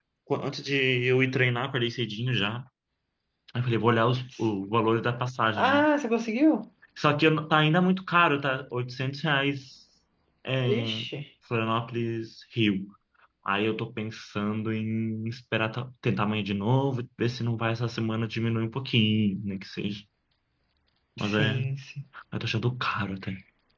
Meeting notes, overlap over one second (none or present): none